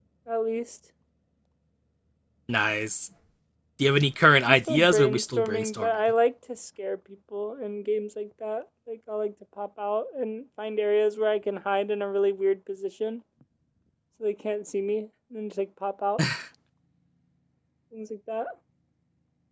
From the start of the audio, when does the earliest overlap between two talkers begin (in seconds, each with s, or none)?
4.5 s